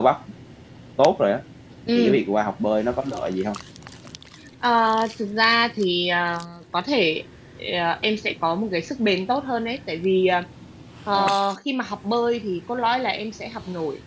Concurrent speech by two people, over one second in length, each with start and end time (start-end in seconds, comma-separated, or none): none